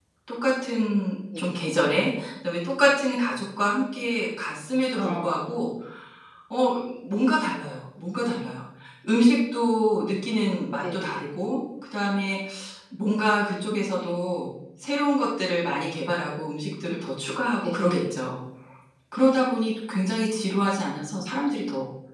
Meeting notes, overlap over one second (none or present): none